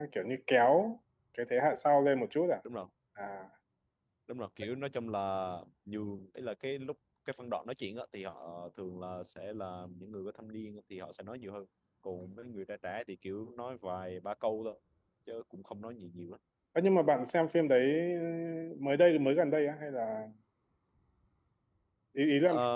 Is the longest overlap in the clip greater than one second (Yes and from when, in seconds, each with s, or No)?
No